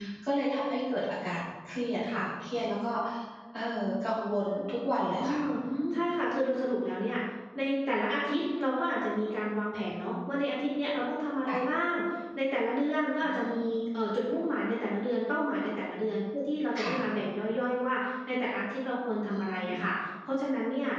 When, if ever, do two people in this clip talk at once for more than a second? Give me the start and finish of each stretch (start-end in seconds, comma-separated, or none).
none